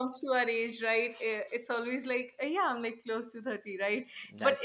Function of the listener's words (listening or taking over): listening